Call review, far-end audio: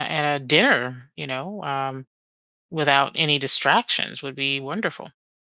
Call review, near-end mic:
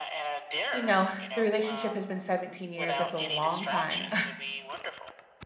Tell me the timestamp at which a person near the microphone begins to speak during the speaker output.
1 s

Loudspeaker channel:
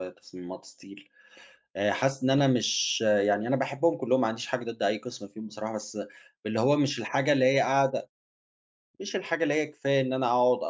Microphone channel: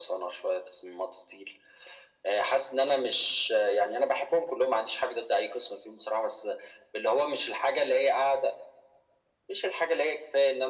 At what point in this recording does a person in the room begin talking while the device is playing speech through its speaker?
none

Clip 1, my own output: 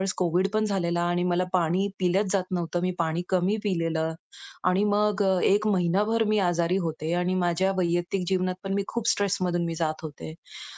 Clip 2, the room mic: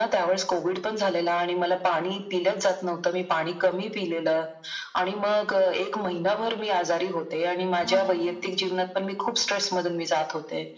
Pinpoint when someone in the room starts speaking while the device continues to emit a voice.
8 s

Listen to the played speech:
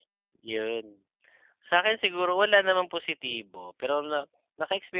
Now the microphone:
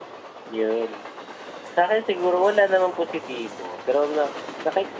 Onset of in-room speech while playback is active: none

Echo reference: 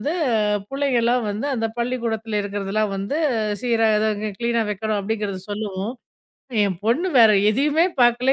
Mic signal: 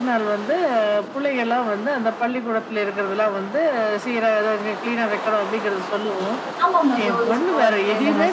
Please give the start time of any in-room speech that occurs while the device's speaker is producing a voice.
7 s

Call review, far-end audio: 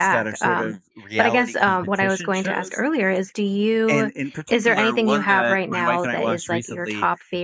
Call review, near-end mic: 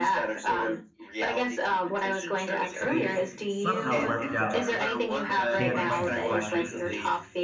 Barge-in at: 2 s

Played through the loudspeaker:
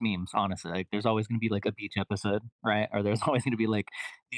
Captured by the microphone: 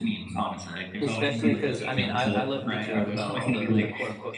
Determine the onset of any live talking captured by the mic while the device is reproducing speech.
1 s

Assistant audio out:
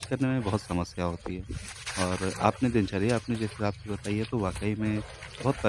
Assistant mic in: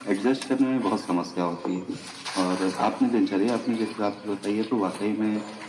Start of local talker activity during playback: none

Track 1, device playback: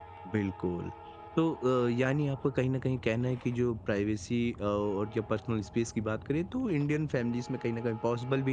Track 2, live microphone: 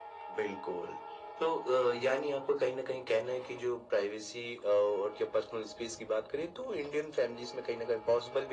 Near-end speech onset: none

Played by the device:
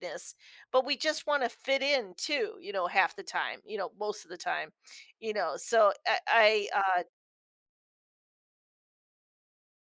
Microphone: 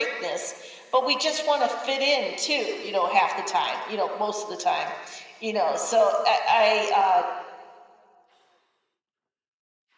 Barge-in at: none

